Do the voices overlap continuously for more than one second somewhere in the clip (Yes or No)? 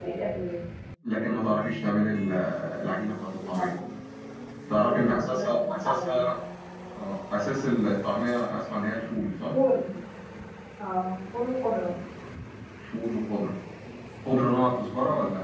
Yes